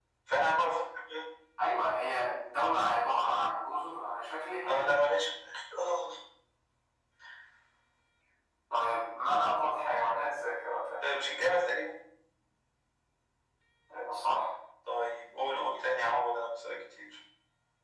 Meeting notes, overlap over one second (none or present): none